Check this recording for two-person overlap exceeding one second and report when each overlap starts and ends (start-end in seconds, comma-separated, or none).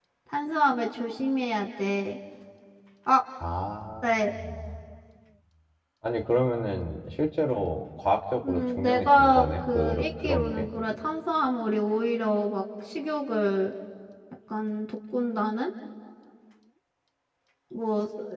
8.5-10.7